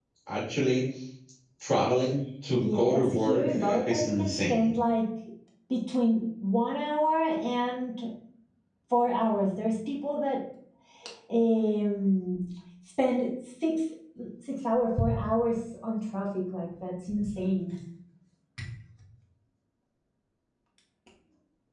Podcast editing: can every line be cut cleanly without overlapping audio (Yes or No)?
No